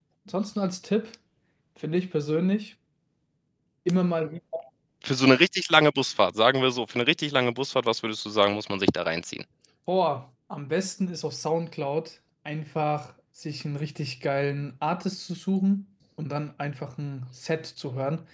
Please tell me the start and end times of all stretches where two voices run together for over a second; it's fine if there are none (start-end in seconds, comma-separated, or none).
none